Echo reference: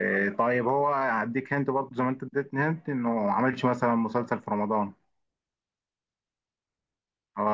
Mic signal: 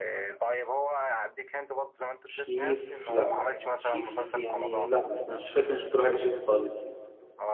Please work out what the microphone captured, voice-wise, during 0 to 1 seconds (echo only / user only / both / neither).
echo only